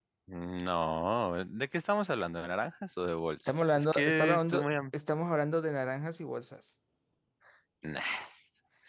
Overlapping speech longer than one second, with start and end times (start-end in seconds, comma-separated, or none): 3.5-4.7